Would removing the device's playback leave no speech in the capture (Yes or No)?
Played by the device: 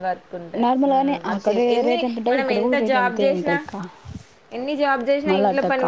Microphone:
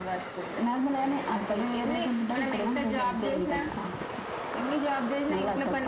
Yes